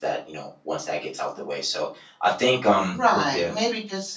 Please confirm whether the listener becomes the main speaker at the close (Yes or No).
Yes